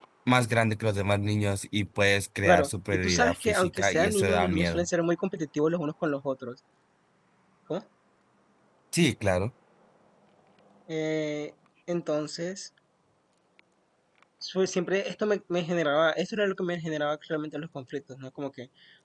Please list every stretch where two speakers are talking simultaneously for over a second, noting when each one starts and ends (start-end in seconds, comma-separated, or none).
2.4-4.8